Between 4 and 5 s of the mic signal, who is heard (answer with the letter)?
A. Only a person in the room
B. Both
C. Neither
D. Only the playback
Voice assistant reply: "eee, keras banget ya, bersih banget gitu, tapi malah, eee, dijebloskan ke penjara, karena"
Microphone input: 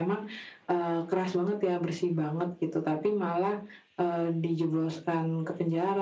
D